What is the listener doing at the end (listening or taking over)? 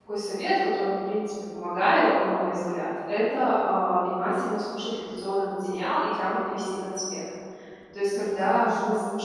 listening